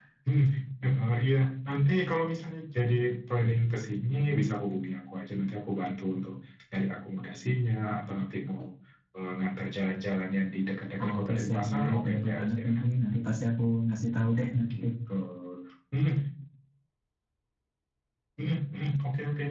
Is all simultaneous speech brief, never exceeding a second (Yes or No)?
No